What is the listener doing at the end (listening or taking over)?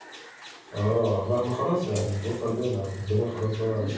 taking over